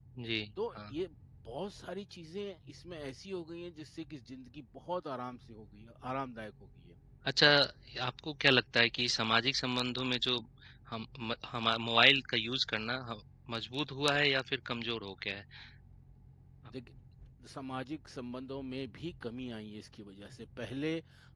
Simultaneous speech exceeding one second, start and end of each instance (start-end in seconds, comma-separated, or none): none